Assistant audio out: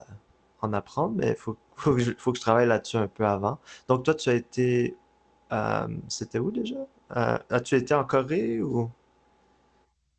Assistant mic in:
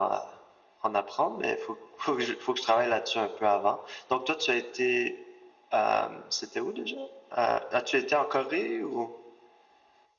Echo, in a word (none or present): present